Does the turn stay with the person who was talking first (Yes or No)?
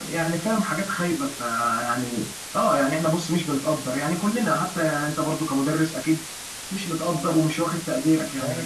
No